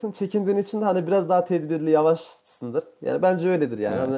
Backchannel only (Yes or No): No